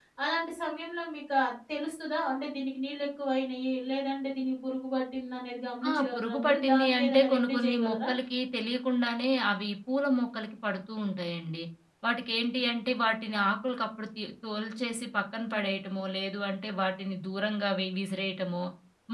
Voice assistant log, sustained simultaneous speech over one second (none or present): present